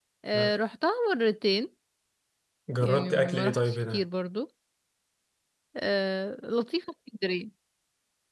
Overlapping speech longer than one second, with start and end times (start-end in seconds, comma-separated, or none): 2.8-4.0